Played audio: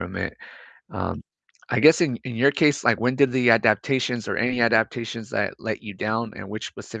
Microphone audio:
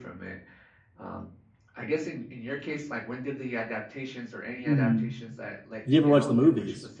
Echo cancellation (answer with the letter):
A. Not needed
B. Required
B